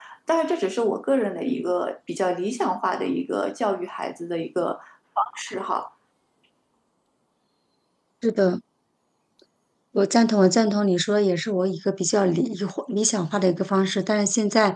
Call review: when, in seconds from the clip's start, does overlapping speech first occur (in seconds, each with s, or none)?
none